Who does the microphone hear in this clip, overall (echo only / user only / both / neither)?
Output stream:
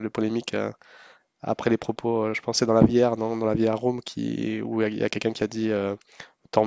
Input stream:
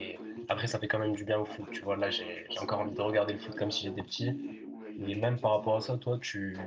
both